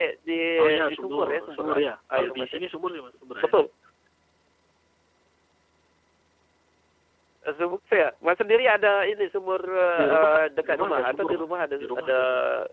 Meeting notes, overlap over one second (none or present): present